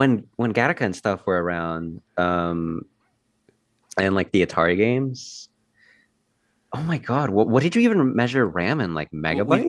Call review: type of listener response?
taking over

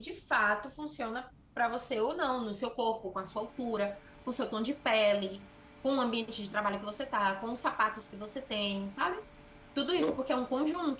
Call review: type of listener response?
listening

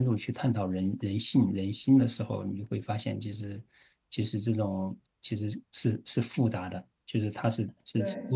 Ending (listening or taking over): listening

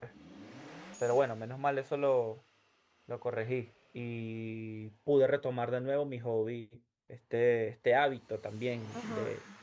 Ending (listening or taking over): taking over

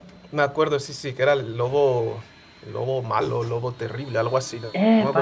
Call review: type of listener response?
taking over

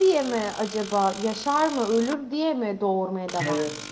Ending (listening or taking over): taking over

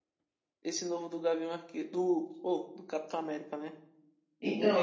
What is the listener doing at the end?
taking over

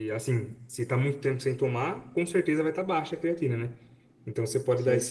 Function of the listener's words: listening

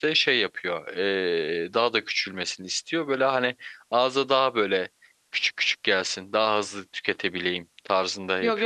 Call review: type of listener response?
taking over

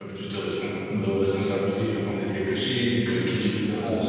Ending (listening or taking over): listening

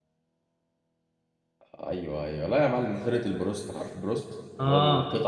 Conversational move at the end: listening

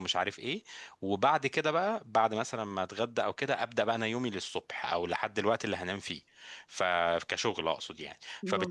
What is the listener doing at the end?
listening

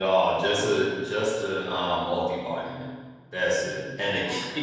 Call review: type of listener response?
listening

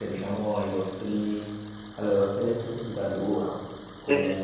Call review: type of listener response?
listening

